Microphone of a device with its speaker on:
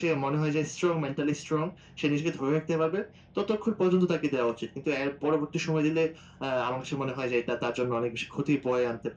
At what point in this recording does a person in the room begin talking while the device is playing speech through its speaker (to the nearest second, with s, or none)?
none